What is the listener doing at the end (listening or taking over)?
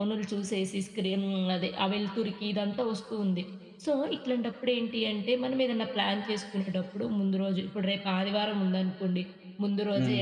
listening